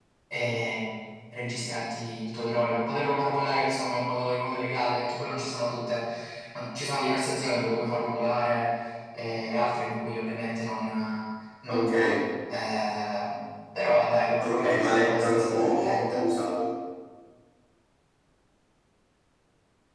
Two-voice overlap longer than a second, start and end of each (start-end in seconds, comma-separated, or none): 14.4-16.2